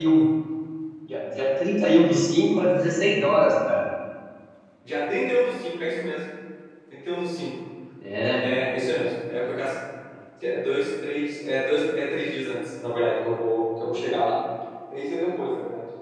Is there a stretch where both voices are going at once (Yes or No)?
No